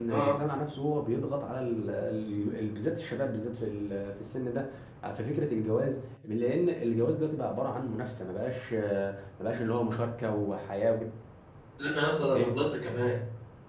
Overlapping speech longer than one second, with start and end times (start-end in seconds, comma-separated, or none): none